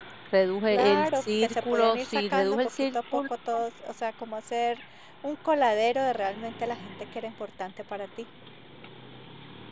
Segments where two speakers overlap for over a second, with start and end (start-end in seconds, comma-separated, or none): 0.7-3.2